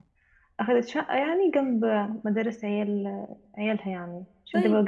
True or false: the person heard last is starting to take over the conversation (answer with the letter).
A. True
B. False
A